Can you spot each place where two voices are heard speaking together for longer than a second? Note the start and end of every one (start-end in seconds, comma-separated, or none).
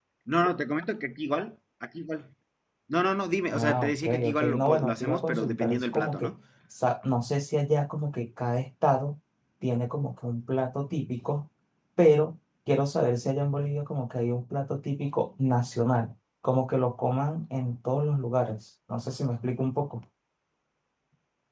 3.5-6.3